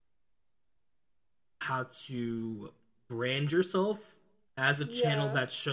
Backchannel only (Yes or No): Yes